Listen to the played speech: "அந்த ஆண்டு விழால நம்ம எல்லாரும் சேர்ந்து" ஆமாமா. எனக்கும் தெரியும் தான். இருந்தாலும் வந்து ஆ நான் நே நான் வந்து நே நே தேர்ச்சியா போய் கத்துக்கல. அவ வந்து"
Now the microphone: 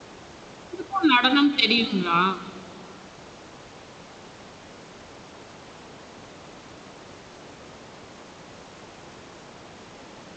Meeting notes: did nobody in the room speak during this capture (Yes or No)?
No